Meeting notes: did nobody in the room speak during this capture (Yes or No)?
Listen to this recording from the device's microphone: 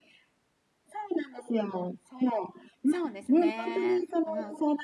No